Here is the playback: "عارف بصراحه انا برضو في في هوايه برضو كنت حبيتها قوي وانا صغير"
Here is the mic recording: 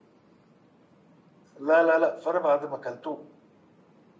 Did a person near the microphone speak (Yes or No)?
Yes